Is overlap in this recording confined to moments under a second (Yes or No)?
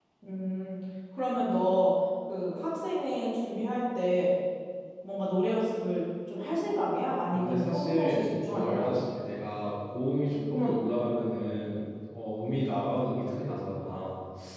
No